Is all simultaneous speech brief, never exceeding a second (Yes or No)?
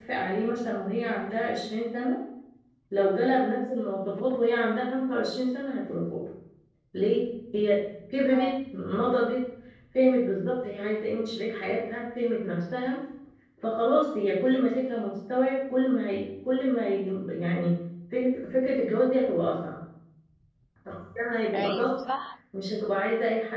Yes